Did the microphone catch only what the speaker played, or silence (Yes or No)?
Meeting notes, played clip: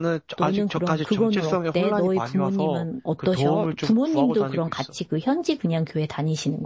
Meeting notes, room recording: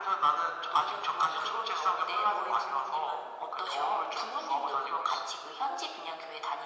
Yes